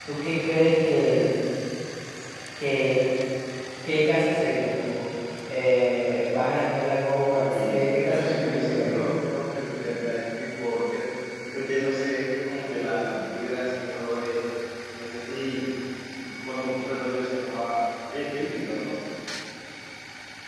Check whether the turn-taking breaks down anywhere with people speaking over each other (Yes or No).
Yes